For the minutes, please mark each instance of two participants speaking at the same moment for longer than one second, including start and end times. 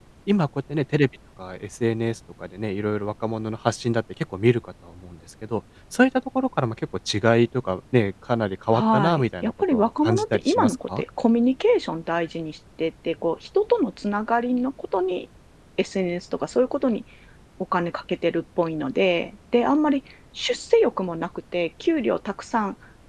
8.7-11.0

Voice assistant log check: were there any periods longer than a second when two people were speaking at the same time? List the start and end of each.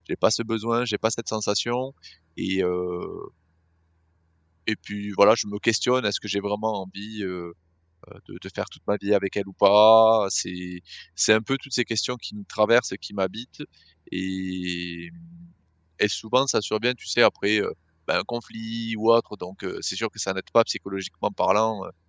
none

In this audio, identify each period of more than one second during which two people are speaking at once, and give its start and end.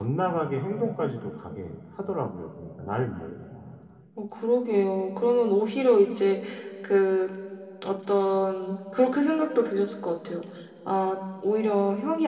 none

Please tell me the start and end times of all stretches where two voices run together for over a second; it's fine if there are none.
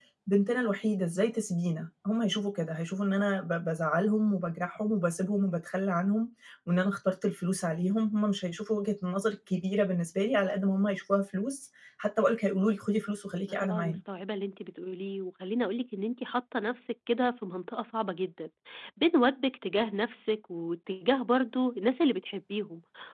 none

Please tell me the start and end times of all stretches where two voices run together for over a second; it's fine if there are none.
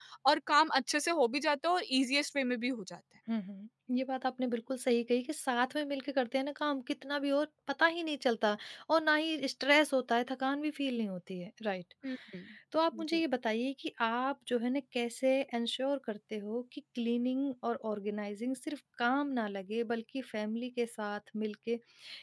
none

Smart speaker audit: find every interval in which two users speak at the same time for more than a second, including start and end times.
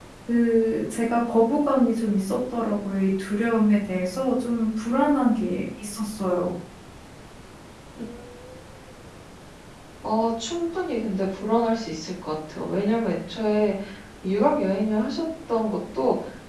none

